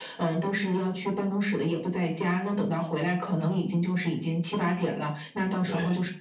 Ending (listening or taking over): listening